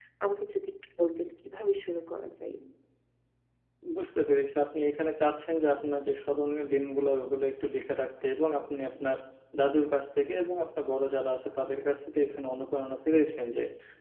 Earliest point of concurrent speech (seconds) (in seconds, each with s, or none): none